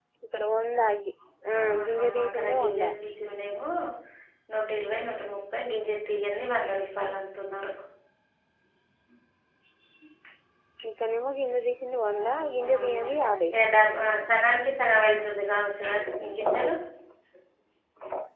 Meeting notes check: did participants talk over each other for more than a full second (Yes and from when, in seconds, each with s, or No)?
Yes, from 1.6 s